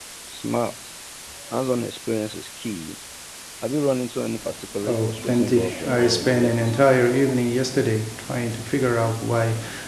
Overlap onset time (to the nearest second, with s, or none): 5 s